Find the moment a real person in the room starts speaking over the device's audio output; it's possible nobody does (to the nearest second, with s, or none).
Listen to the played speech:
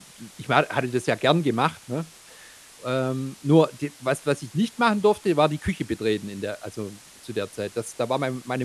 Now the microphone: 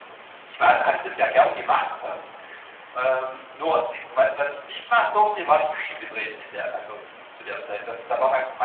none